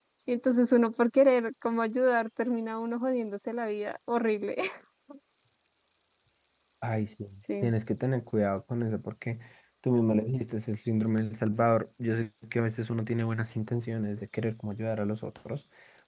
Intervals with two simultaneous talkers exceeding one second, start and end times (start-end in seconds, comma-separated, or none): none